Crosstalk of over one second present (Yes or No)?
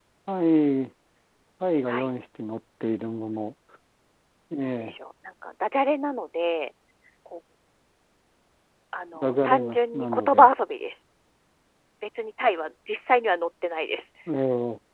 Yes